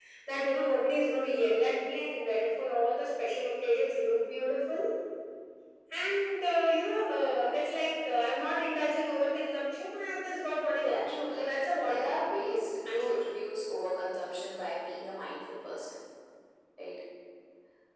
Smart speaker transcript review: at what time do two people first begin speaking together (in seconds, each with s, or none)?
10.8 s